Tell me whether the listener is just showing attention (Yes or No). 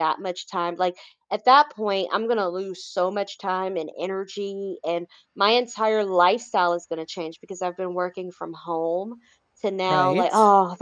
Yes